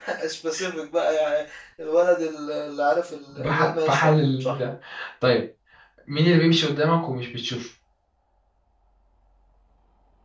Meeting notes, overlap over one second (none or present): present